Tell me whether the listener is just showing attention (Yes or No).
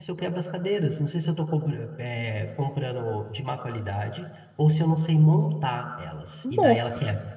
No